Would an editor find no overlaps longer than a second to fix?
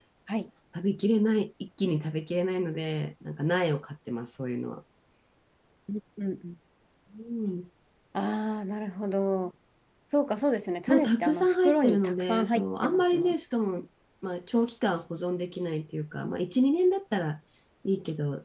No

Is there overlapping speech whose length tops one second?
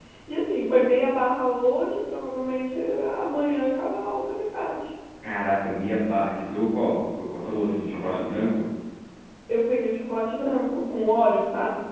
No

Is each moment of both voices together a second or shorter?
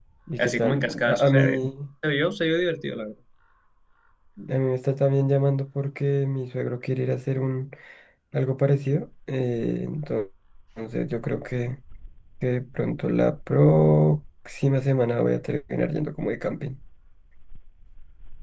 No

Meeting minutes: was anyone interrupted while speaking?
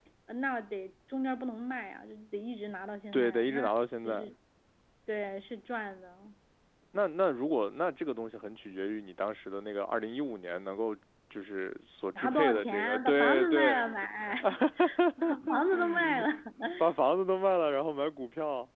Yes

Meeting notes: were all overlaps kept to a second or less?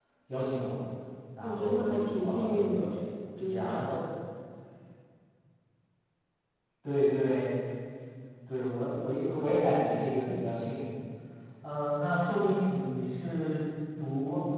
No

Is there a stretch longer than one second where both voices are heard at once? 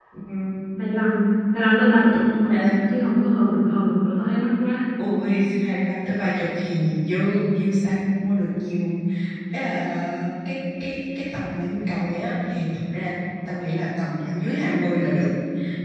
No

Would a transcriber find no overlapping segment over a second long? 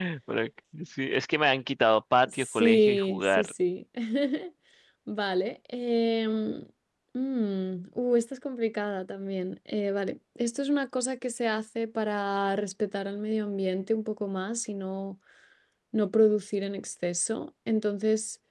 No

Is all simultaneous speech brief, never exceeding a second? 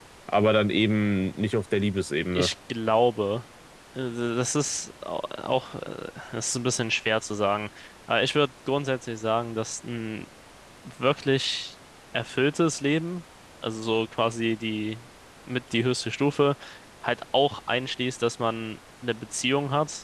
Yes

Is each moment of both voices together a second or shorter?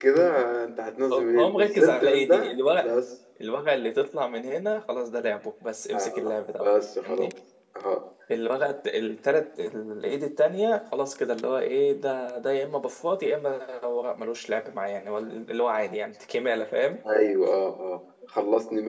No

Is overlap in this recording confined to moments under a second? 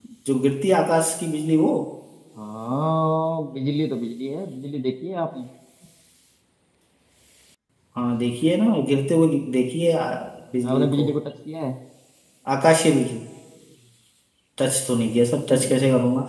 Yes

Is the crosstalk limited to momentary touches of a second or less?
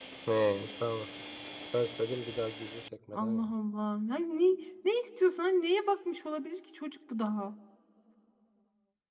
Yes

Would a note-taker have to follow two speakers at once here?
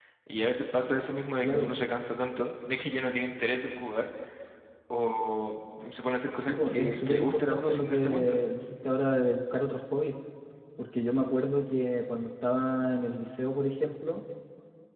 Yes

